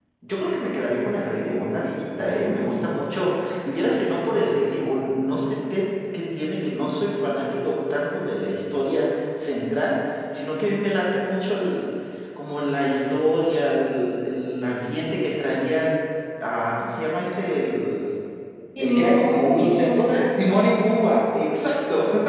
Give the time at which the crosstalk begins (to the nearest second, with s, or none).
19 s